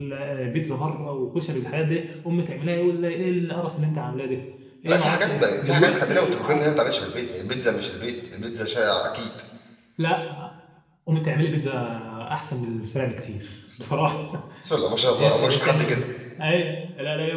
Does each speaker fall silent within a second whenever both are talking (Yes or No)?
No